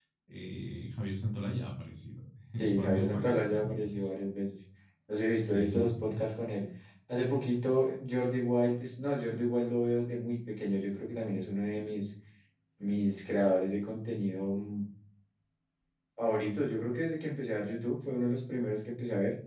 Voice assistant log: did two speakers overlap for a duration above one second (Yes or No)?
Yes